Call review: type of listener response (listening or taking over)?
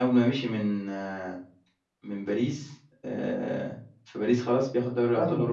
taking over